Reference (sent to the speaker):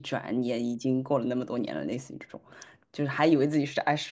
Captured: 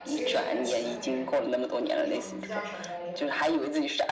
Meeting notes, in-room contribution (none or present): present